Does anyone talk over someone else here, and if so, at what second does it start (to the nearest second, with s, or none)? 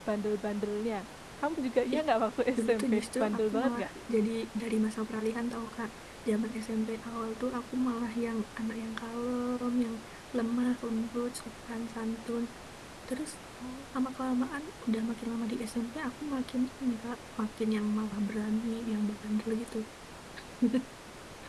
3 s